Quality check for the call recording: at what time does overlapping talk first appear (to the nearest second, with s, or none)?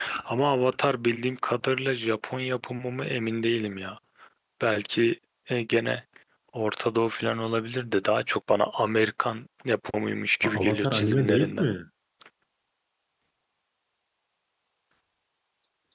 10 s